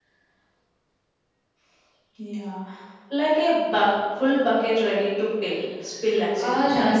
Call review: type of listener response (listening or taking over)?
taking over